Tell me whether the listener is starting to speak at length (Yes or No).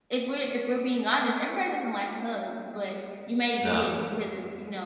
No